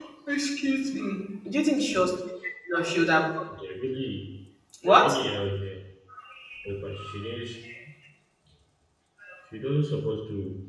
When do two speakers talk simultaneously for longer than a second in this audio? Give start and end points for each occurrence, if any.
none

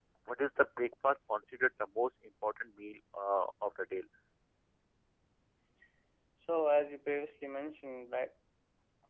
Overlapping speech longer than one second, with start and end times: none

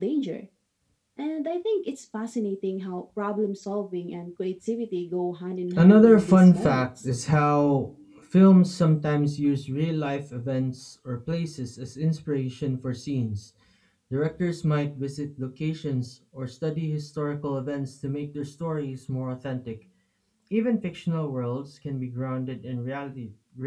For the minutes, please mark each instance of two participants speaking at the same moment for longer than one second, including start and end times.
5.8-7.1

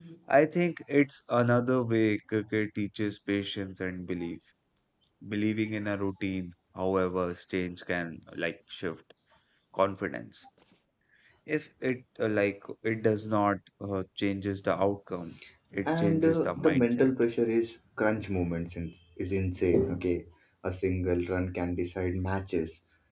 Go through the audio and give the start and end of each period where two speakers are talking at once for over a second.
15.9-17.1

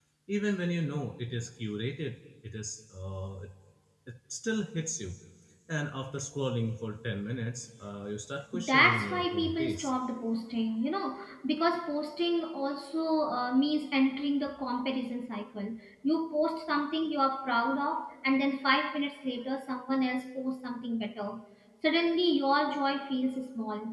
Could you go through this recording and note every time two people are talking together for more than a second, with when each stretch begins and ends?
8.7-9.9

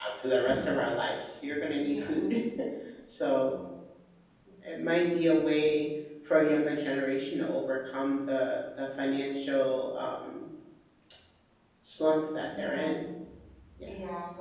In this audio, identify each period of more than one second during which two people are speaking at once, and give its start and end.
none

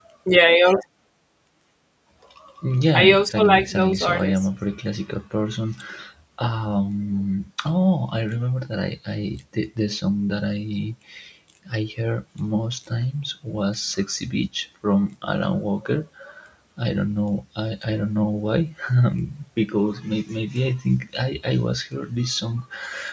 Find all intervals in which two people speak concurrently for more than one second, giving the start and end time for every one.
2.9-4.5

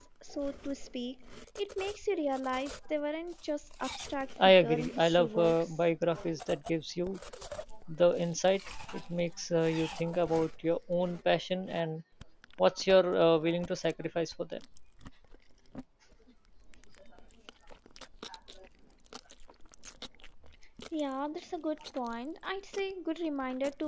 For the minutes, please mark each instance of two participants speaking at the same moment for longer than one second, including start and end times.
4.4-5.8

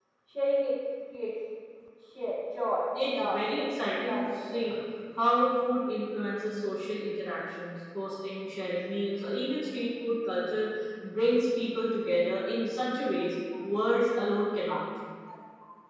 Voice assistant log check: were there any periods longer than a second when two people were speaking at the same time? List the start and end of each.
3.0-4.8

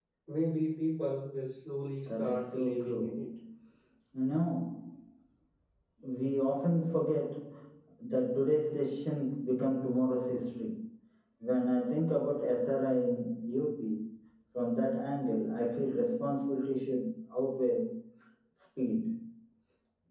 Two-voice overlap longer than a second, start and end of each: 2.1-3.3

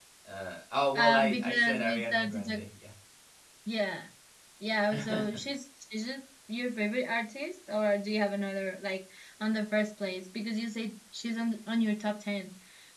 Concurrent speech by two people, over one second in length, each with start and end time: 1.0-2.6

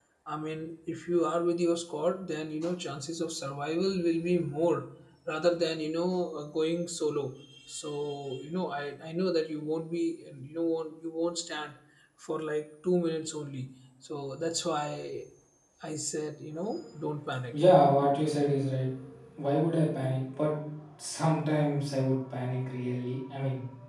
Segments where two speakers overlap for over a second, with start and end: none

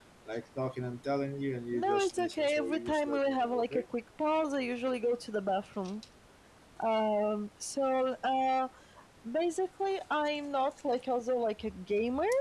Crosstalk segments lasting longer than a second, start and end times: 1.7-3.8

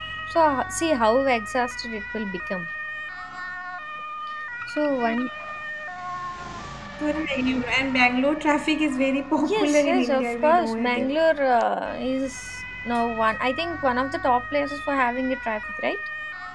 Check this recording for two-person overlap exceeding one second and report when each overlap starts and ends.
9.5-11.1

